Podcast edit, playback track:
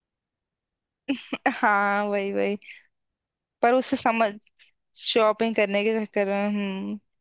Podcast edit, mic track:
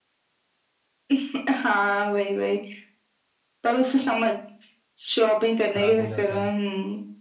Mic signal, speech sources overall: both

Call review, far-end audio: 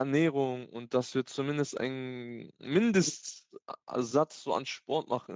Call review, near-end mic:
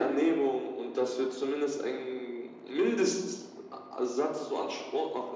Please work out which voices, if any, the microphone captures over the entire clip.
echo only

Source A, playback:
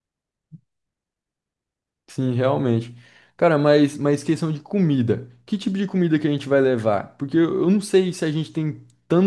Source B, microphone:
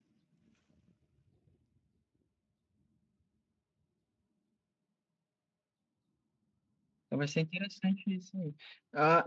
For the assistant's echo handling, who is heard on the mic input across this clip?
user only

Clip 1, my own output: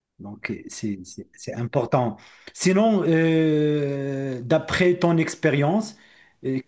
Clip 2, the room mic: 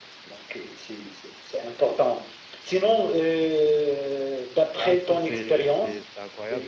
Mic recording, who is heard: both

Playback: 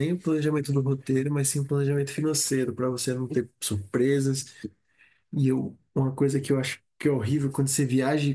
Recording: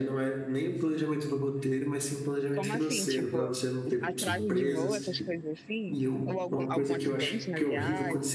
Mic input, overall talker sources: both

